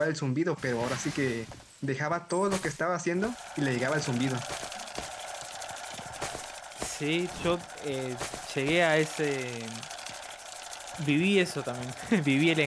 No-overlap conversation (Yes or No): Yes